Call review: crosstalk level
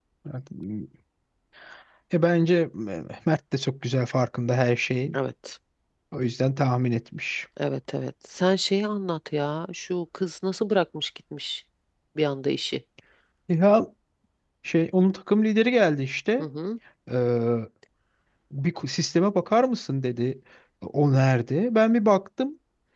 none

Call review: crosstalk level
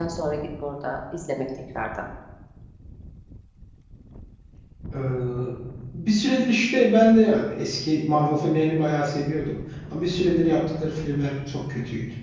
none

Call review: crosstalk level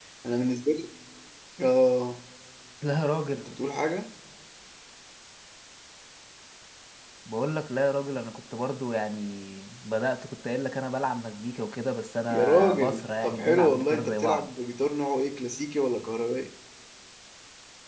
present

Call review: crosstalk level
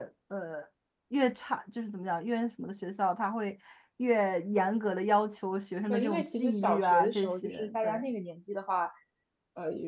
present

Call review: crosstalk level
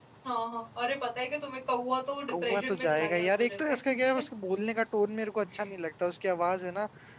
present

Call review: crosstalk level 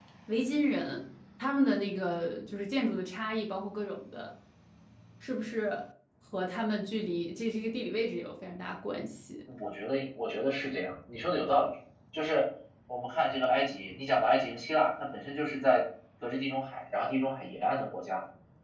none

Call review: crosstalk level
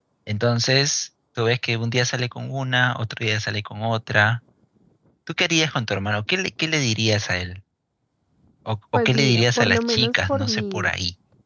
present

